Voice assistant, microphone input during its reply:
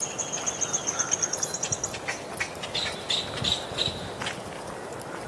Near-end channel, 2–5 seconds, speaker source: neither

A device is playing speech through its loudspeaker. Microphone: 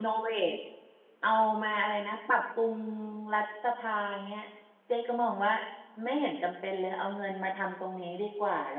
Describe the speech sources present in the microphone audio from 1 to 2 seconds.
user only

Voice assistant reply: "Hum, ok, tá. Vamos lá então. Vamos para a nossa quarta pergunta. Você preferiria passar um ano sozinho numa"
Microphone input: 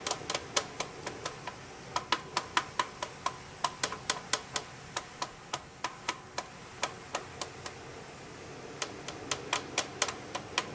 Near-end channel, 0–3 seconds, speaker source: neither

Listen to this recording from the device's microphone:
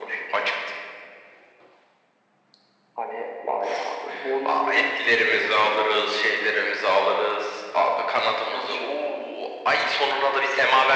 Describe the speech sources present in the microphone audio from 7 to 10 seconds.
echo only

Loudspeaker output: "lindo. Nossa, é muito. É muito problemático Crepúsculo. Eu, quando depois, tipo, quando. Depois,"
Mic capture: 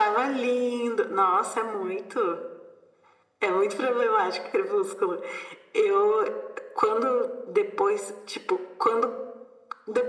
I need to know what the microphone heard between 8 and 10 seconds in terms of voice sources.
echo only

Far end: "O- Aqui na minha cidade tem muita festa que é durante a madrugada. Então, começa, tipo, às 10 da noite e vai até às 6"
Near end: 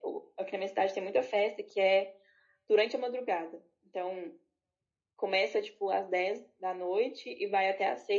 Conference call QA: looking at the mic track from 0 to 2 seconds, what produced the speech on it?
echo only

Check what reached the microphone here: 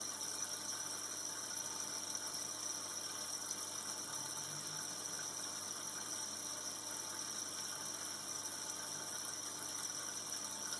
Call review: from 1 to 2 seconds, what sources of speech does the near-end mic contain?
neither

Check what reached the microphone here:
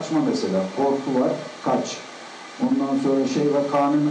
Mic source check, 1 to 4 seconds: echo only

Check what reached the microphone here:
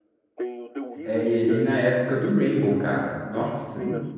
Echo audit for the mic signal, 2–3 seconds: both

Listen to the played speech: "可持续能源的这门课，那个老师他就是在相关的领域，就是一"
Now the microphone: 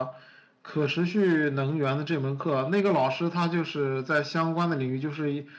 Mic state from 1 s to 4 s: echo only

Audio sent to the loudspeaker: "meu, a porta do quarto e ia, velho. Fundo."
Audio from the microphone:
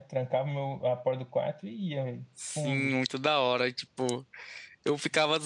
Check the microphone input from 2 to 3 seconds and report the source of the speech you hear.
both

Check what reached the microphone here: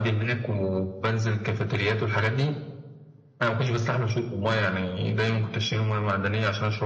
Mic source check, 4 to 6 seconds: echo only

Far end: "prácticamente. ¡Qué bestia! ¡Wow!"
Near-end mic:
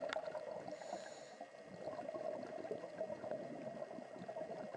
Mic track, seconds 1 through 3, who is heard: neither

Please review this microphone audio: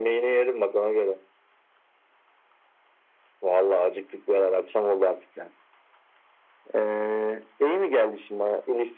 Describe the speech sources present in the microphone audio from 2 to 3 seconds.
neither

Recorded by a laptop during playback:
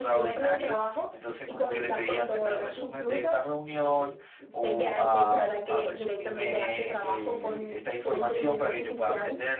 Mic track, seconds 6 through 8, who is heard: both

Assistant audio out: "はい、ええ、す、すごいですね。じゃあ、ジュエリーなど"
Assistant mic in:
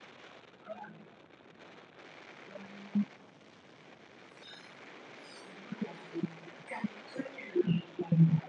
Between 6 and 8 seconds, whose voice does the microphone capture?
echo only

